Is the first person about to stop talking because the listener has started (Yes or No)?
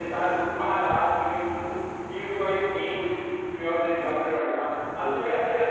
No